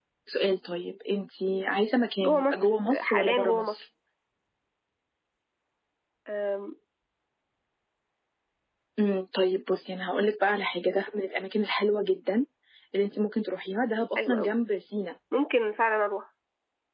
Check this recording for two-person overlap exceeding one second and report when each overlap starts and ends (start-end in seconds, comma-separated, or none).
2.2-3.8